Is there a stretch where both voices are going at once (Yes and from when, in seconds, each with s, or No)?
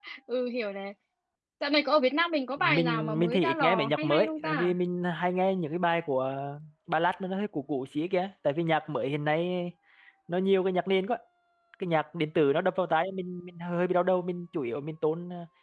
Yes, from 2.6 s